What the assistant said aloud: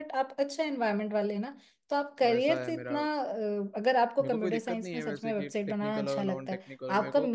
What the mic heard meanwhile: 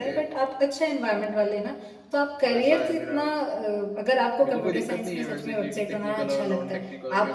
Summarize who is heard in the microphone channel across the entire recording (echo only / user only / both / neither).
echo only